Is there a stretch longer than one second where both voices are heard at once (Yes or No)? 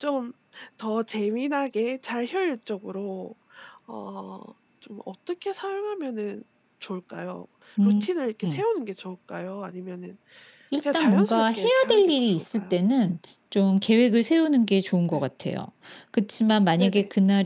Yes